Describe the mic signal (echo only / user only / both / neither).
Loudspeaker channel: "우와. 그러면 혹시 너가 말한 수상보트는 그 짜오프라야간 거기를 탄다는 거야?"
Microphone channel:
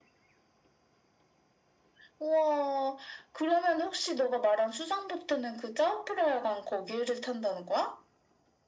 echo only